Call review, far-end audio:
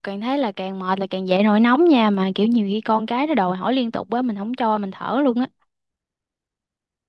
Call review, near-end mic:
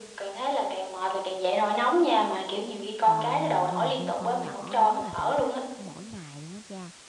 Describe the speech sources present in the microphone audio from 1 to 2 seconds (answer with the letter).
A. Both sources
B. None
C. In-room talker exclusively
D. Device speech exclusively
D